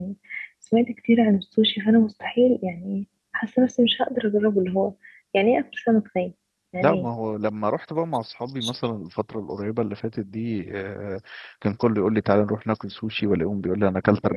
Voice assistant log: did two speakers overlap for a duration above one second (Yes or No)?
No